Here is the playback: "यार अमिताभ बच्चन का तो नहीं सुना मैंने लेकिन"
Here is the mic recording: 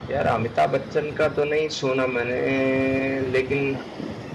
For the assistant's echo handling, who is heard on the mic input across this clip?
echo only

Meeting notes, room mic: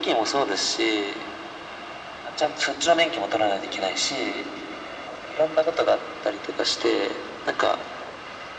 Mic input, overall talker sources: echo only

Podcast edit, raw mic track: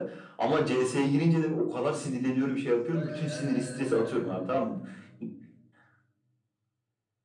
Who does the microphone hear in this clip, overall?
both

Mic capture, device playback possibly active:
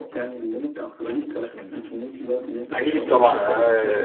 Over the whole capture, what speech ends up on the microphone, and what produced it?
both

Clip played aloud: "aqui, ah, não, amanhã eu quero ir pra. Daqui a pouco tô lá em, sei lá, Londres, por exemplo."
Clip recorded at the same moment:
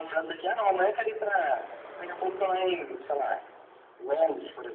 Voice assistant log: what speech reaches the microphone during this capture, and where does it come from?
echo only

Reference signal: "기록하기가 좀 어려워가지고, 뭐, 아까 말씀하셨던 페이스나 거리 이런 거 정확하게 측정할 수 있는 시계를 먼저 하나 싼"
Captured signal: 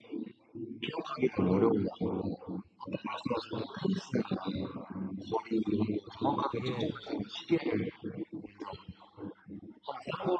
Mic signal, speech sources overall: both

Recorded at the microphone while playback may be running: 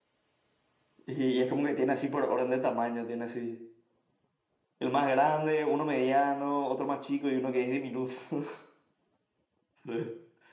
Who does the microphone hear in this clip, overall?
echo only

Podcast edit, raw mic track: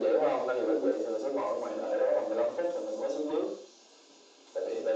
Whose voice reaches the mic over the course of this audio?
echo only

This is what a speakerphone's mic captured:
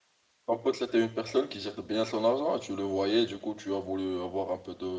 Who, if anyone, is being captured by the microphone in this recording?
user only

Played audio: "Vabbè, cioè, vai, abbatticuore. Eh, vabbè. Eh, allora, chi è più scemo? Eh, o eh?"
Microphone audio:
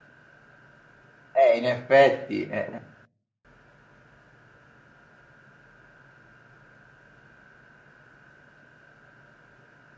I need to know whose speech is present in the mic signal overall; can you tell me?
user only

